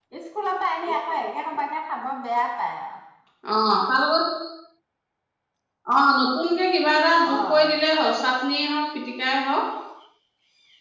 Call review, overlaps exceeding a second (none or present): none